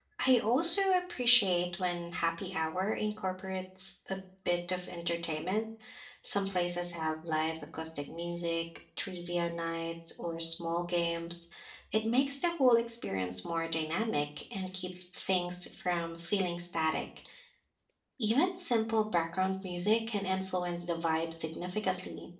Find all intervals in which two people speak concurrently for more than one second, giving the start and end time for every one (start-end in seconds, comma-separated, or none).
none